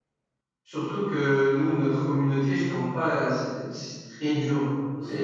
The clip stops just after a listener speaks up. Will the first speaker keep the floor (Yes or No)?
No